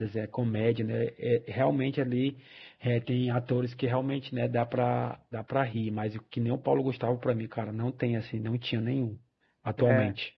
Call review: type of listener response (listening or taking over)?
taking over